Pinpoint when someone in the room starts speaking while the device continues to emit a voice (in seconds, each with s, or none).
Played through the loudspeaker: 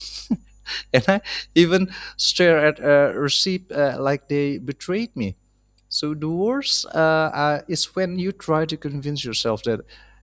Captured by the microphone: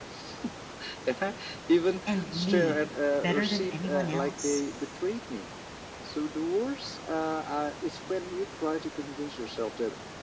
2.0 s